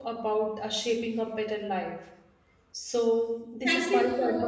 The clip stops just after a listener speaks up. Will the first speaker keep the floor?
No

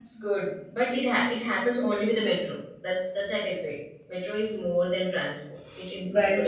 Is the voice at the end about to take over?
No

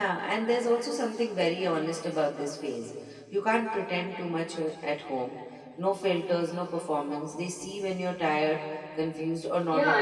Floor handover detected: Yes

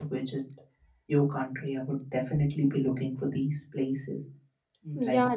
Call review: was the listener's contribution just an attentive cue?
No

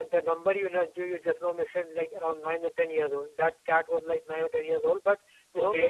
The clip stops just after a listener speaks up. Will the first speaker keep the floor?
Yes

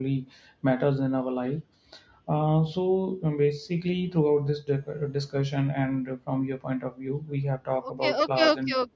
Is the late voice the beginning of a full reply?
Yes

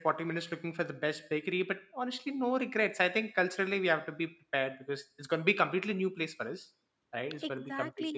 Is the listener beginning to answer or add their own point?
Yes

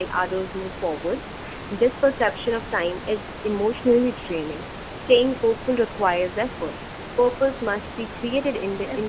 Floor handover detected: Yes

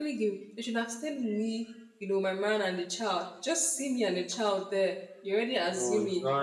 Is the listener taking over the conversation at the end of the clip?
Yes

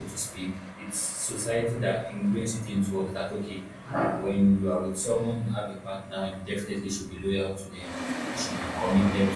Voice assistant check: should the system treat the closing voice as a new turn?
No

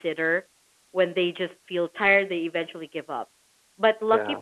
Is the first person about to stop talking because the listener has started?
No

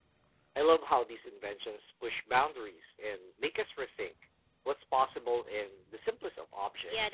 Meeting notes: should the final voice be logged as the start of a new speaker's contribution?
Yes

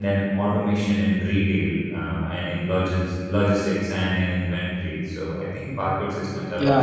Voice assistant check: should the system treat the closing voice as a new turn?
Yes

